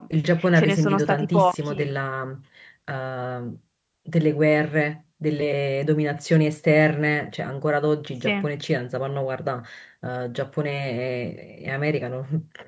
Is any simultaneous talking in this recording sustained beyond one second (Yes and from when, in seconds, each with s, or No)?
Yes, from 0.6 s